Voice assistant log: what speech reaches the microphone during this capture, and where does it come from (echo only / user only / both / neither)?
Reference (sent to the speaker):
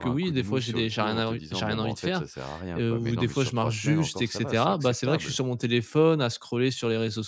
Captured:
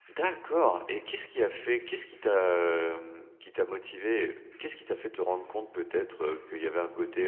user only